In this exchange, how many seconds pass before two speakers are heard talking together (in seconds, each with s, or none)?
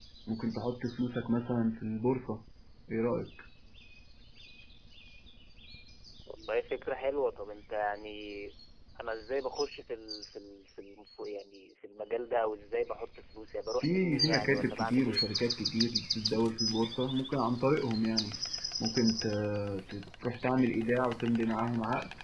13.8 s